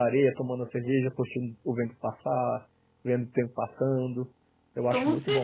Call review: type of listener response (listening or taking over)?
taking over